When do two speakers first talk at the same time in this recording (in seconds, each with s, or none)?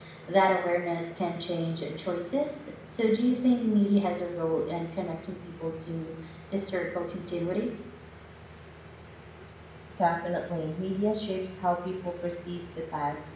none